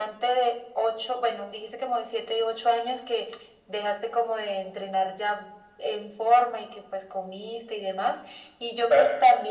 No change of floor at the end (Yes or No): Yes